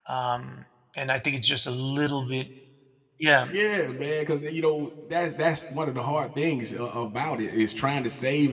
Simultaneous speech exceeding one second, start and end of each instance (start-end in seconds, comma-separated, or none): none